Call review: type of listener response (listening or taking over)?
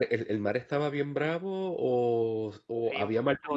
taking over